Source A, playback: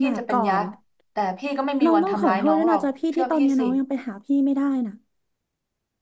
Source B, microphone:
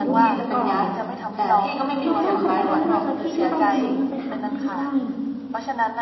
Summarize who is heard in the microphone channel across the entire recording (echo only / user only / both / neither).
both